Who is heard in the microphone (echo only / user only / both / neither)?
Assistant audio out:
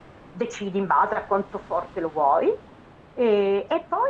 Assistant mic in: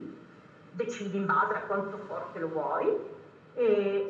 echo only